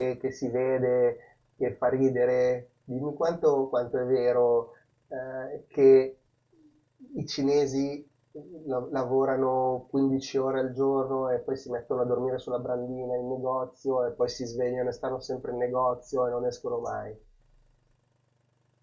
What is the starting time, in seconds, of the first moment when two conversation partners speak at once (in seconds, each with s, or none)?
none